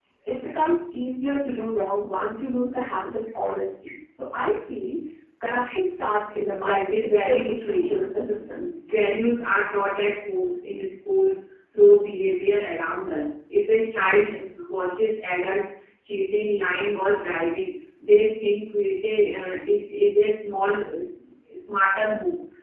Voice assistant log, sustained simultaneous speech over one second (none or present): present